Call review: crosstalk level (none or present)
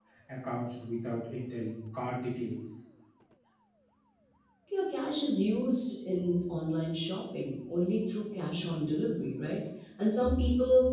none